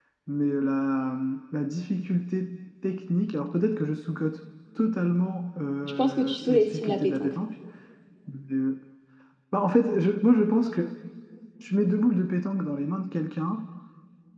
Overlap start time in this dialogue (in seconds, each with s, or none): 6.0 s